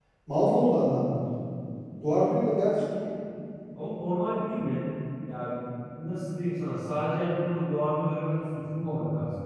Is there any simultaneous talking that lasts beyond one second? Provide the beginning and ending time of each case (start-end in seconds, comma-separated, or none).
none